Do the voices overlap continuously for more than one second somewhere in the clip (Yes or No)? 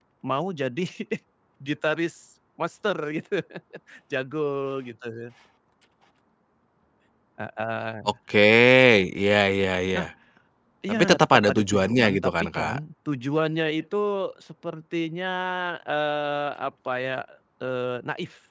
Yes